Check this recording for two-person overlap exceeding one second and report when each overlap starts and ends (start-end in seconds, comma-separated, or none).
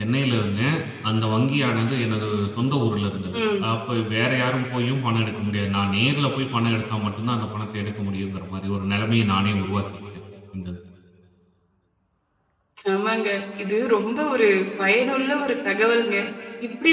none